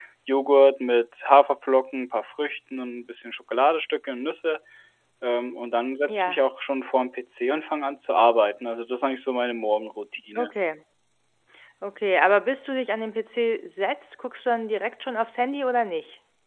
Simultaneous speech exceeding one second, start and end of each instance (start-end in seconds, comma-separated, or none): none